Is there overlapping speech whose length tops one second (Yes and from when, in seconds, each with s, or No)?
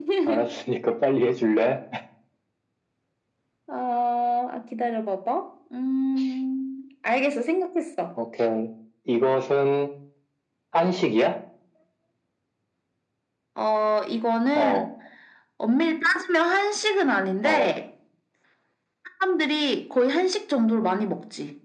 No